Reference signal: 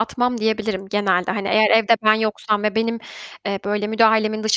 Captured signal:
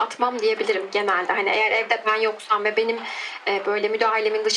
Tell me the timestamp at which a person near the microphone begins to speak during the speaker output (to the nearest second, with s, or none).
none